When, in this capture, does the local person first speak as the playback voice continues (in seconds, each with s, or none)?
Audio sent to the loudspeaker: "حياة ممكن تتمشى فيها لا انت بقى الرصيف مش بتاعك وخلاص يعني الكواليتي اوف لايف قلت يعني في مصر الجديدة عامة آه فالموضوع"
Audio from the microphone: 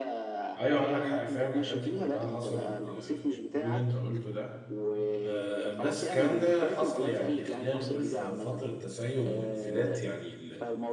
0.6 s